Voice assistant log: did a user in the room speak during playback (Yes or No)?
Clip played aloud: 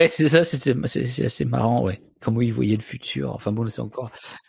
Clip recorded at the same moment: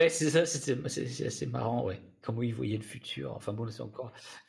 No